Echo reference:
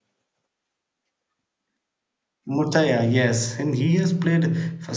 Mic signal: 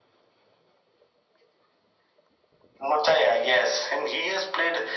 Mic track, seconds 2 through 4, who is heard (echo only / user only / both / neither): echo only